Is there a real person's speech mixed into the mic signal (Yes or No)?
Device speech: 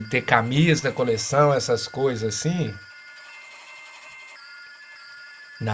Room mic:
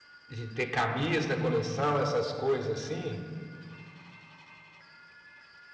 Yes